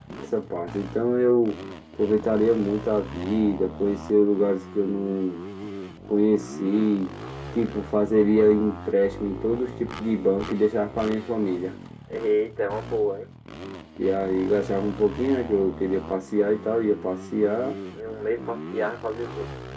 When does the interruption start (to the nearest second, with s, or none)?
none